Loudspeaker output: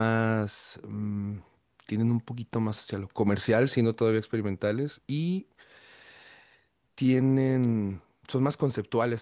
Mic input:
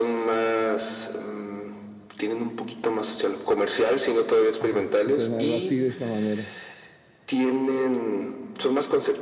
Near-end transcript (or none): Ajá, sí suena algo así de esa manera.